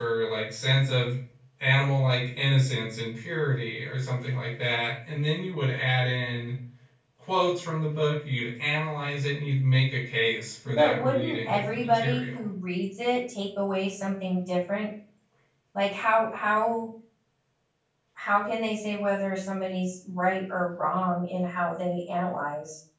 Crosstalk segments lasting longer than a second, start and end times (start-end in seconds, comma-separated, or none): 10.7-12.5